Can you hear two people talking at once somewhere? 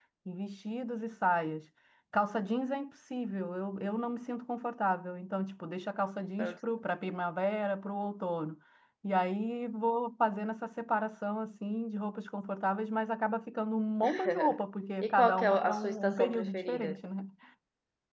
Yes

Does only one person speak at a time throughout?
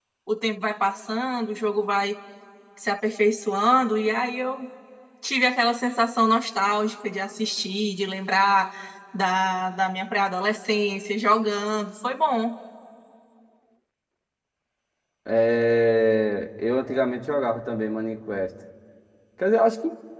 Yes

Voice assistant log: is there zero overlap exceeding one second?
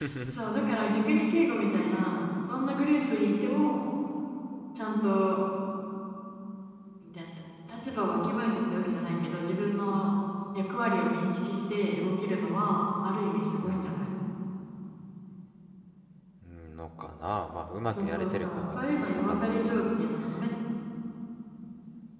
No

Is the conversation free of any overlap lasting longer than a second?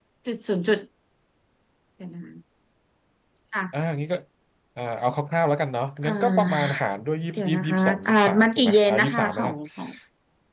No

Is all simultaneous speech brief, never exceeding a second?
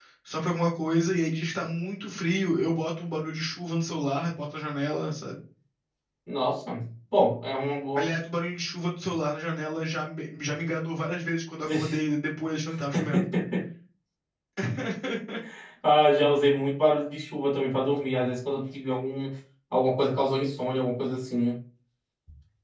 Yes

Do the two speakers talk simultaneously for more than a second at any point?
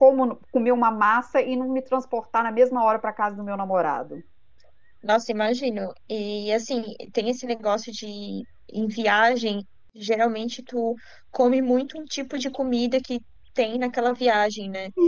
No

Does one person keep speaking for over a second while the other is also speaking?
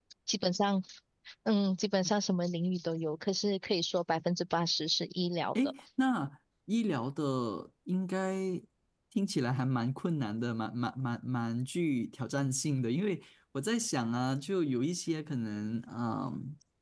No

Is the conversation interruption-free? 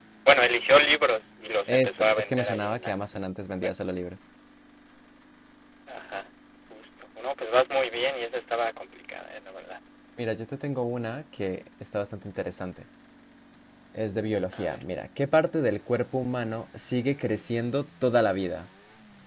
No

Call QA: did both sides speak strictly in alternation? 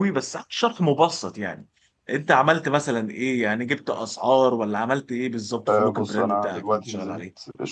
No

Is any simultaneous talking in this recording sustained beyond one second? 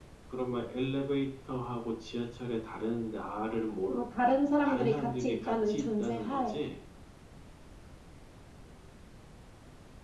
Yes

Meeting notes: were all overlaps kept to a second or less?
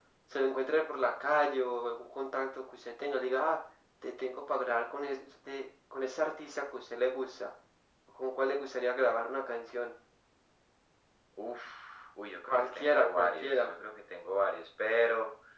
No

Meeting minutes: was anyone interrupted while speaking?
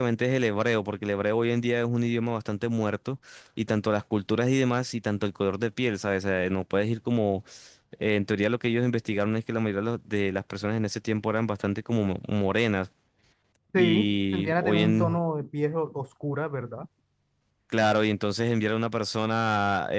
Yes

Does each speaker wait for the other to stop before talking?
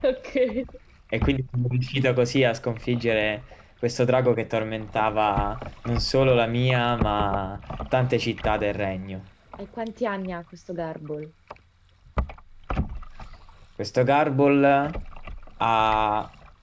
Yes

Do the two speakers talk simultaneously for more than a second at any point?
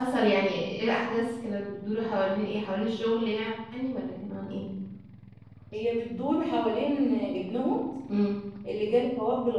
No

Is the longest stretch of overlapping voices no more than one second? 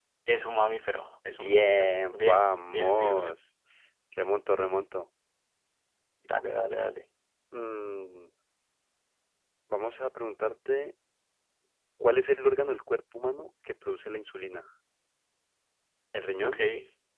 No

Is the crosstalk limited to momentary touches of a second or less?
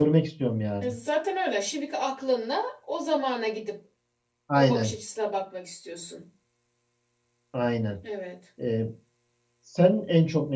Yes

